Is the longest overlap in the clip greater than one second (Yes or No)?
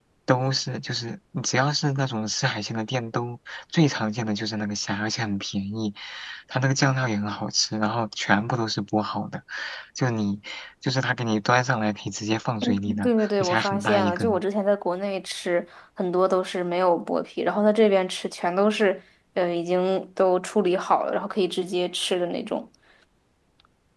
Yes